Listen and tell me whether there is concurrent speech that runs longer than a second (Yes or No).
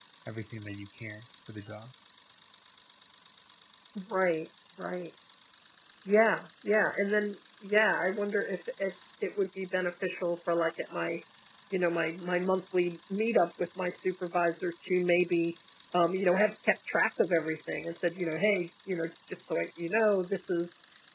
No